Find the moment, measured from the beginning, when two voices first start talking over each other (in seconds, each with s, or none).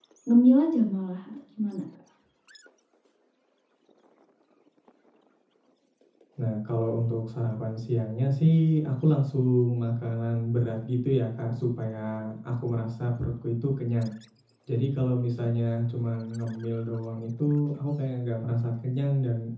none